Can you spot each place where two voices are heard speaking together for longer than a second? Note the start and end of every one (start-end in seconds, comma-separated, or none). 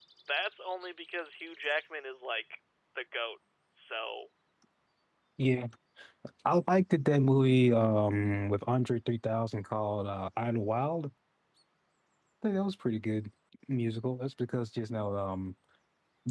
none